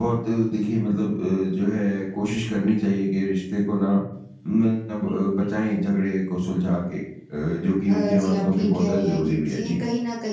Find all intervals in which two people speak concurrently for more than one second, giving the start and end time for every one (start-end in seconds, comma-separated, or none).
7.9-9.8